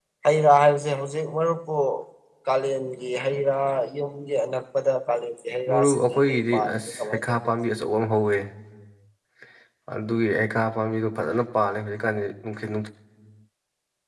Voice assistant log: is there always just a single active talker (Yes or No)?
No